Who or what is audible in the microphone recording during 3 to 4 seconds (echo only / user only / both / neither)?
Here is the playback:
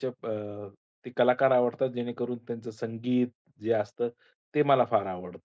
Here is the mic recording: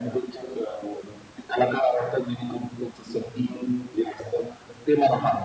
echo only